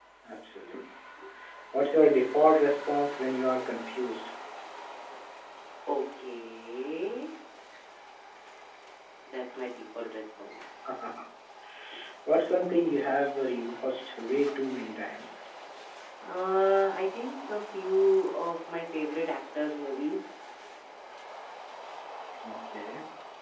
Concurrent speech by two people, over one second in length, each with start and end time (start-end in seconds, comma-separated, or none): none